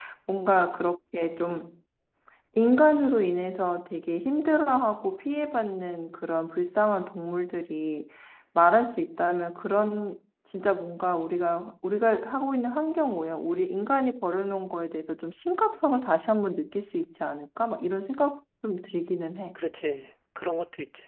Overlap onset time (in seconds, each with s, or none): none